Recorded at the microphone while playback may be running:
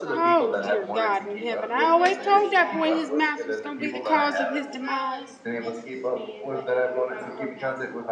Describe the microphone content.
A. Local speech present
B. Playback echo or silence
A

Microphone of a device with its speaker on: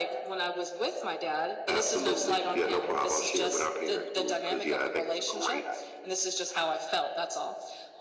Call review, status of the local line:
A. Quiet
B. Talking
A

